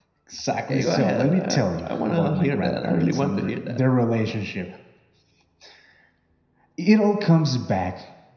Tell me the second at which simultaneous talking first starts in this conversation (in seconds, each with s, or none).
0.7 s